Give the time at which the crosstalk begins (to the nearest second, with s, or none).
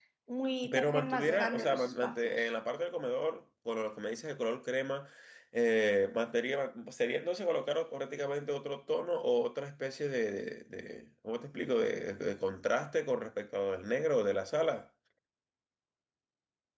1 s